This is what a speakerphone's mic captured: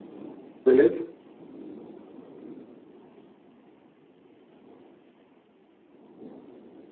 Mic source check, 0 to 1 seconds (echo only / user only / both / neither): user only